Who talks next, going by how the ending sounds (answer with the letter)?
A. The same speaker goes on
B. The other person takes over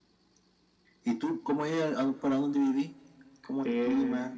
B